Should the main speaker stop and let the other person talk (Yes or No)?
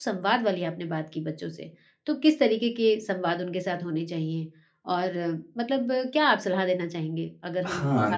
Yes